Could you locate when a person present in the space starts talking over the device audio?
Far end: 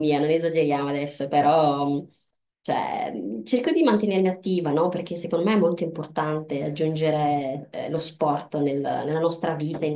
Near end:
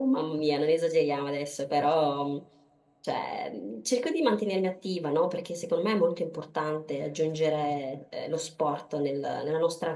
none

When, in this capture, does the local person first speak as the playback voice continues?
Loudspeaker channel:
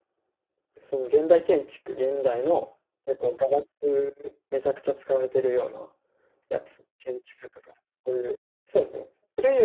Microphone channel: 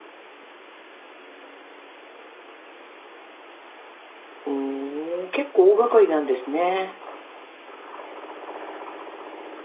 4 s

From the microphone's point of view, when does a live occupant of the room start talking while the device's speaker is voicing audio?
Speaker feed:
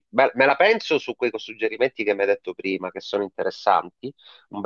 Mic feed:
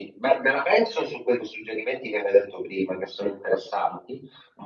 none

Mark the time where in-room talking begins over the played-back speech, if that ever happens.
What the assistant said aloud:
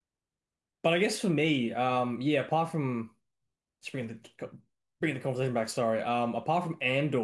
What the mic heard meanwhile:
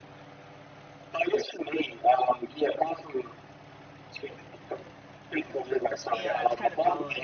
6 s

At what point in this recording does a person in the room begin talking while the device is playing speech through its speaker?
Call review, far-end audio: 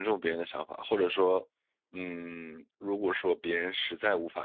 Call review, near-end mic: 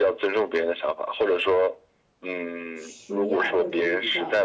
3 s

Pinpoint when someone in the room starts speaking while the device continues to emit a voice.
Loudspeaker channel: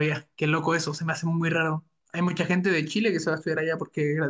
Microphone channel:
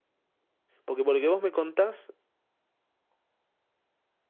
1 s

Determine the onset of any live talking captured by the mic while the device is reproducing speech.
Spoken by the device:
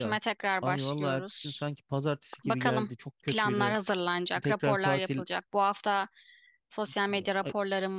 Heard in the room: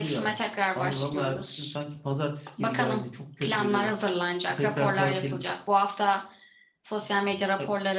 none

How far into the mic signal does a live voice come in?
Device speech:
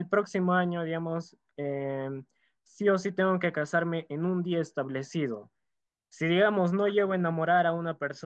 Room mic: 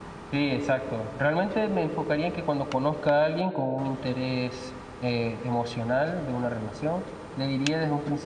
0 s

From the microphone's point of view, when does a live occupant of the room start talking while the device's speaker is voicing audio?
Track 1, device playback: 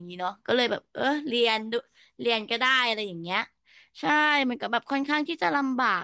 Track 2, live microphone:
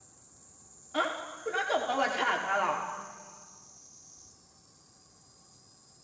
1 s

